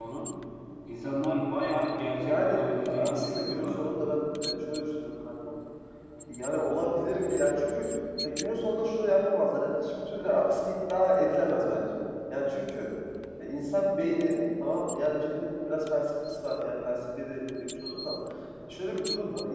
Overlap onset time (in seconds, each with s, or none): 2.2 s